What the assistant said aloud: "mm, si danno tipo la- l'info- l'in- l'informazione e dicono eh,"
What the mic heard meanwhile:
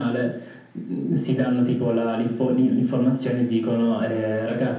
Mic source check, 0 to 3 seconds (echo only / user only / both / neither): echo only